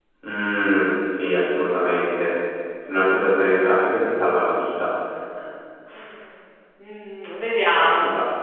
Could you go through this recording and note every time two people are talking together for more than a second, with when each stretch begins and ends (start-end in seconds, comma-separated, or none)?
none